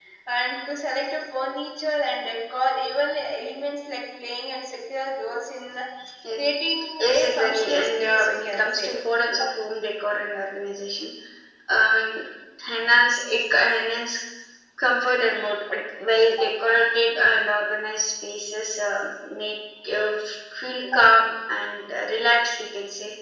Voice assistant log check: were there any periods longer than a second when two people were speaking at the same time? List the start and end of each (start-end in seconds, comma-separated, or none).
7.2-8.9